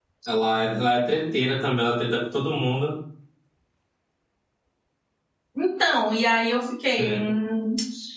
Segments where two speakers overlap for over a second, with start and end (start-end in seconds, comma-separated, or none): none